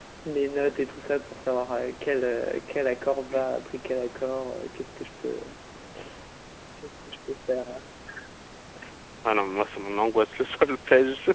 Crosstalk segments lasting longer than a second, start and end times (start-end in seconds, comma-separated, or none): none